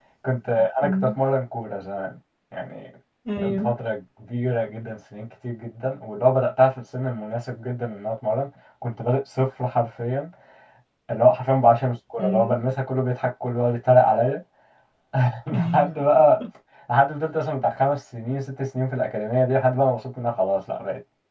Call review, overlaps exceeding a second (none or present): none